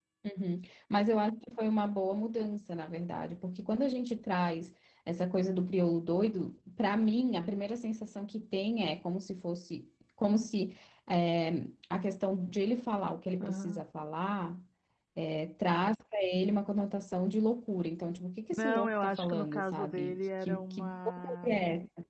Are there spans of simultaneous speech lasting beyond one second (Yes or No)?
Yes